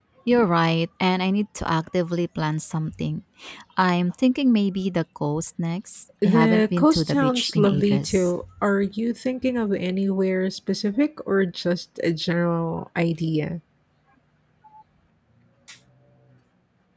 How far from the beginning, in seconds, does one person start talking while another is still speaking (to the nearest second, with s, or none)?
6 s